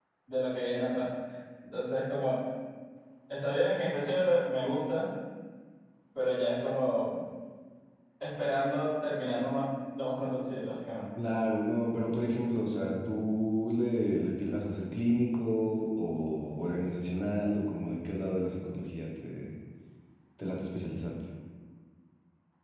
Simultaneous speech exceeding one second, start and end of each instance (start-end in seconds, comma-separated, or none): none